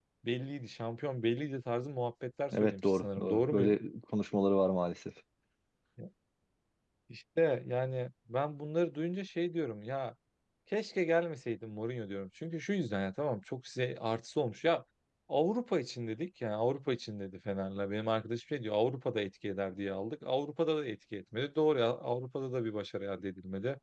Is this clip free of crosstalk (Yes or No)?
No